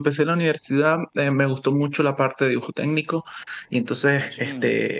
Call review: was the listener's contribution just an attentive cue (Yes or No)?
Yes